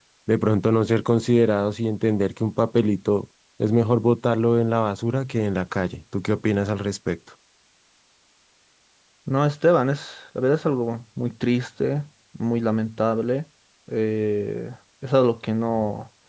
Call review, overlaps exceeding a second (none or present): none